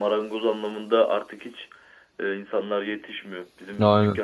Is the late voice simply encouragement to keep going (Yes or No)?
Yes